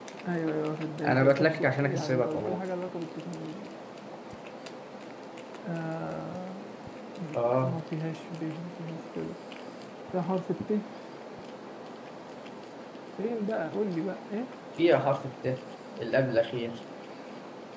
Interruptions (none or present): present